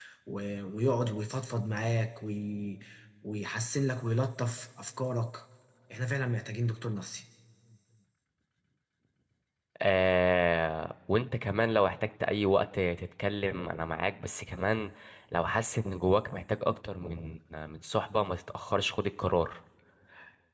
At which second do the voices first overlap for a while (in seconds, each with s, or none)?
none